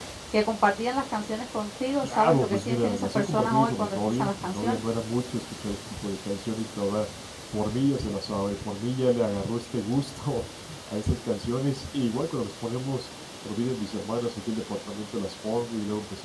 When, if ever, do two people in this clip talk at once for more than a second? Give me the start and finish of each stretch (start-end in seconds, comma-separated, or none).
2.0-4.8